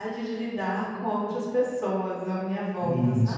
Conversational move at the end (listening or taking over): taking over